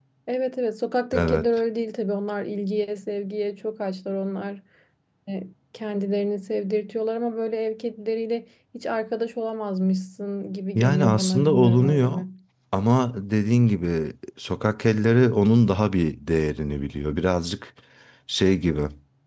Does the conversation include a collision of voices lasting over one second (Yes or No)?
Yes